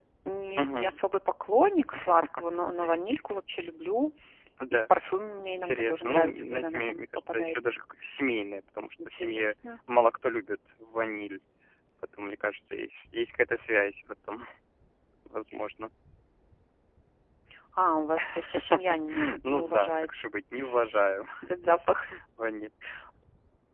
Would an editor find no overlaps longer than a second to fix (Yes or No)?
No